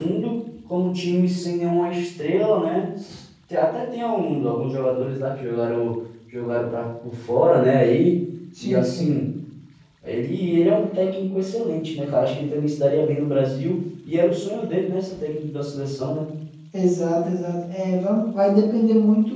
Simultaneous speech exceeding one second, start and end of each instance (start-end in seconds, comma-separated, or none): none